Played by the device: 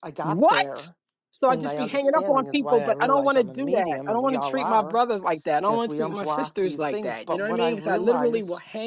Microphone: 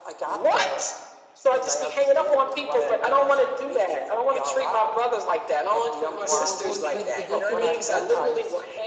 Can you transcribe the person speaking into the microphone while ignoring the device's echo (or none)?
Yeah, well, we, we it is an intervention.